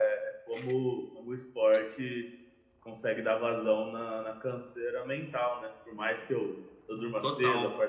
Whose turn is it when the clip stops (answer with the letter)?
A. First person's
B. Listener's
A